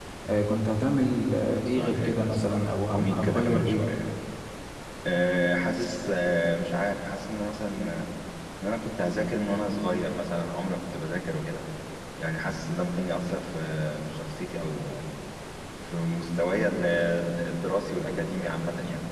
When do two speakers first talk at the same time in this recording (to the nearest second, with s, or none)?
2 s